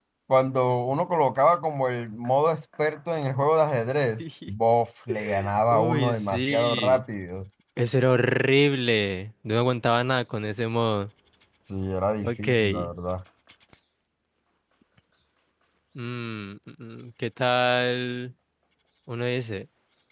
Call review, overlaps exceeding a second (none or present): present